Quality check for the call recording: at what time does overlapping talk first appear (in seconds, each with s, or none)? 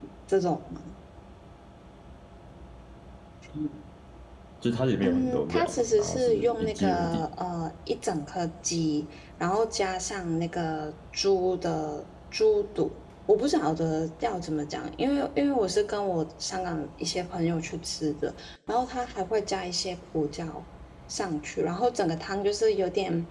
5.0 s